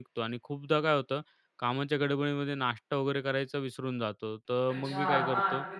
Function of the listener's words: taking over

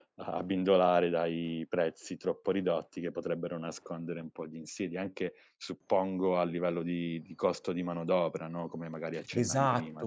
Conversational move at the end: taking over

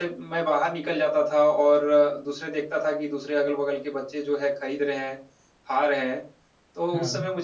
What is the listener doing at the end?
listening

